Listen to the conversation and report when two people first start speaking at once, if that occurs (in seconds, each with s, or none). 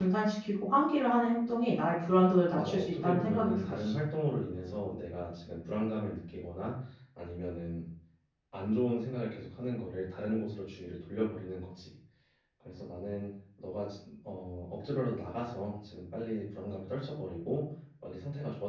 2.5 s